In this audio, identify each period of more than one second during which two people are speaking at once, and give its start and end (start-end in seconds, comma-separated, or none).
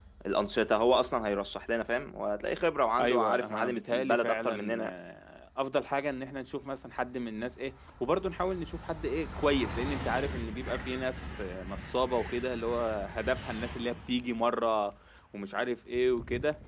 3.0-4.9